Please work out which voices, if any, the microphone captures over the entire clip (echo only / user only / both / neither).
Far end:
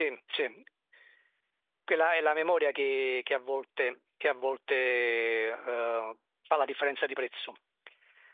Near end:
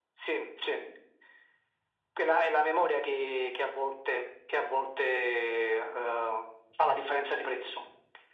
echo only